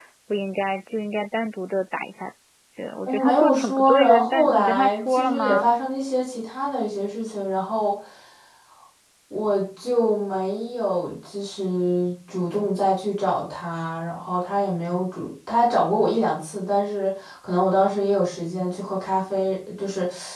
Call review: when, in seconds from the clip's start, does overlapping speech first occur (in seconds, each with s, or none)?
3.1 s